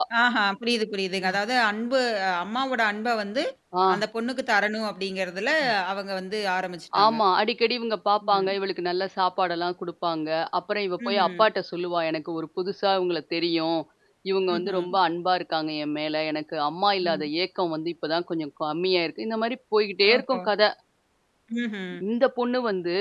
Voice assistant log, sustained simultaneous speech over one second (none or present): none